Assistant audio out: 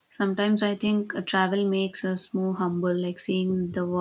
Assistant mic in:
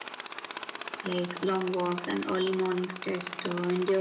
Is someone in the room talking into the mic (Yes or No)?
Yes